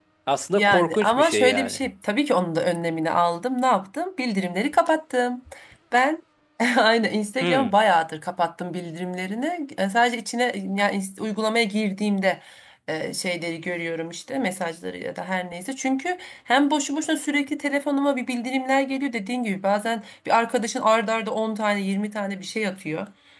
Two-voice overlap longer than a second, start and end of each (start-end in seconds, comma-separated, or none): 0.6-1.8